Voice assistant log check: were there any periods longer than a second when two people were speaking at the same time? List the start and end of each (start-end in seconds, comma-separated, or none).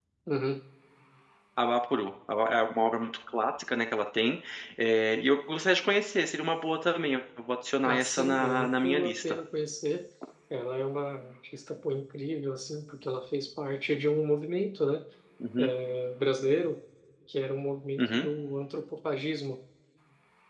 7.9-9.4